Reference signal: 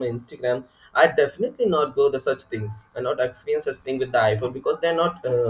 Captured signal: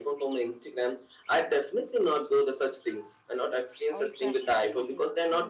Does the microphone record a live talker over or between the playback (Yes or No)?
Yes